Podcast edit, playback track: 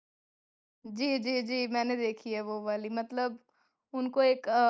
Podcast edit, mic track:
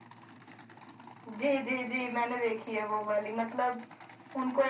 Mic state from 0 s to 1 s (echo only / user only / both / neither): neither